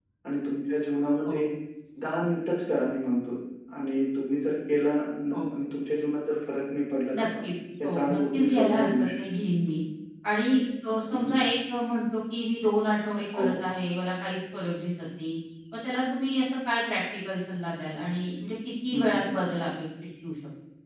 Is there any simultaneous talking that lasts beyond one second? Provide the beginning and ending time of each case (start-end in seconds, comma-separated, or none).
7.8-9.2